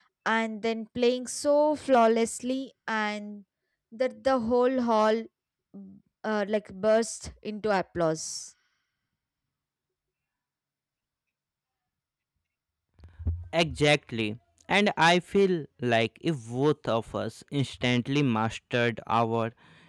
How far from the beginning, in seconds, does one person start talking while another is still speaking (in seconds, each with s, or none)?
none